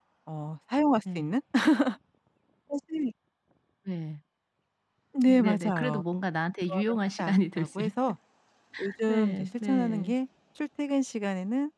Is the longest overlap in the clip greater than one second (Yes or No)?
Yes